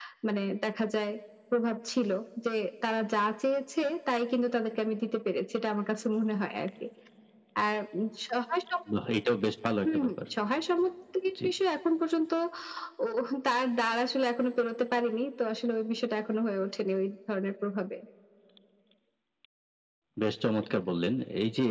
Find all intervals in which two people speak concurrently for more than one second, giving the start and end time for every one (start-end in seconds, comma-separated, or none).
none